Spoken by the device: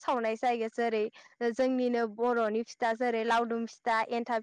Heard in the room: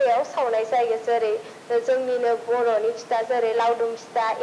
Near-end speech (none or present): none